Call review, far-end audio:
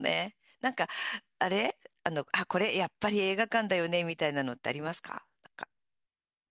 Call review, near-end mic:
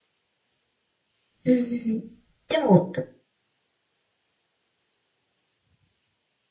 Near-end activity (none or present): present